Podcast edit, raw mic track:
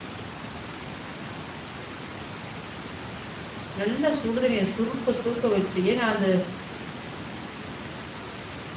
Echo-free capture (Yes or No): Yes